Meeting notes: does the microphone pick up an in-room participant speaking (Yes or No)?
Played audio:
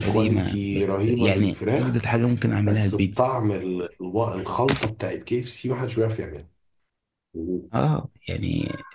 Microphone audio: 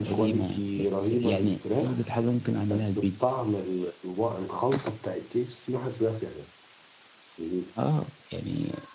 No